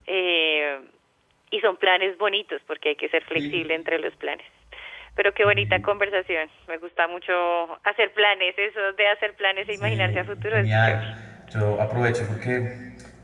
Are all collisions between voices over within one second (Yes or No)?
No